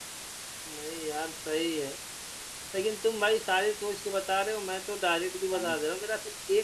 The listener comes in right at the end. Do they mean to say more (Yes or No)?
No